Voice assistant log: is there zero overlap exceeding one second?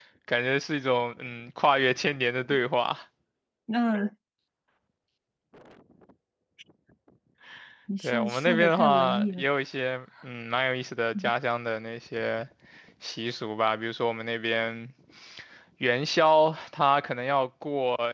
No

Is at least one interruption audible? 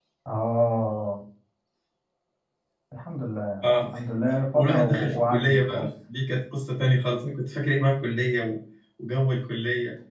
Yes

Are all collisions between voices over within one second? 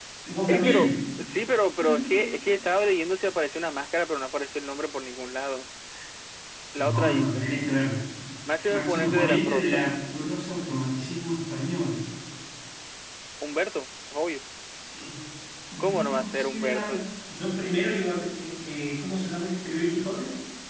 No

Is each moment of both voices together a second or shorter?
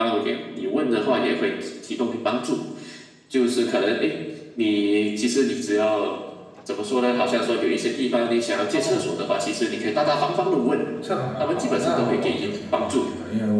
No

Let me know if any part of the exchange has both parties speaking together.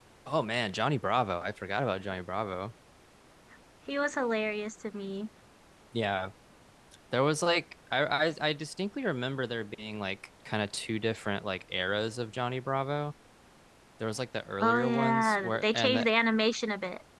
Yes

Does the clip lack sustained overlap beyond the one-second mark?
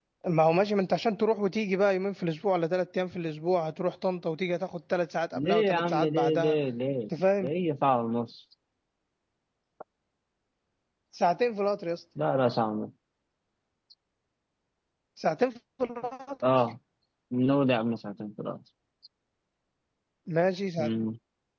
No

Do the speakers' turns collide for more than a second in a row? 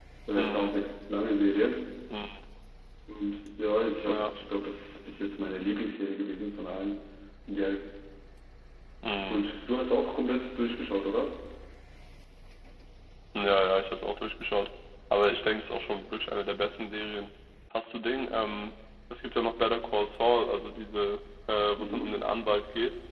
No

